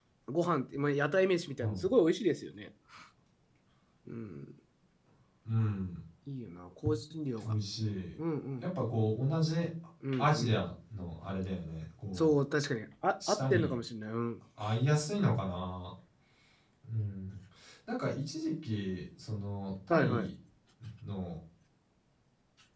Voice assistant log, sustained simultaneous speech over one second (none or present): none